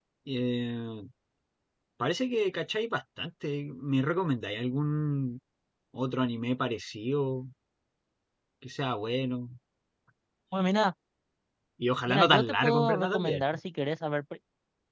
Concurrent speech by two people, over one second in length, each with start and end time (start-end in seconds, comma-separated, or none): 12.1-13.4